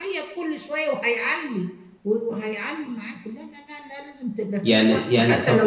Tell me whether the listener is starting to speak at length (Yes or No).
Yes